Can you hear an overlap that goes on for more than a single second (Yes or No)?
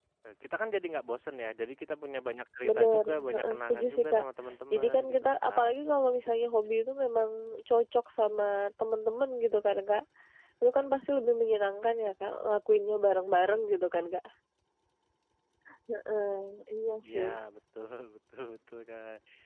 Yes